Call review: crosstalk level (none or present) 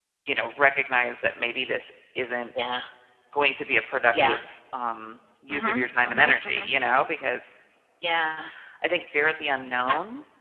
present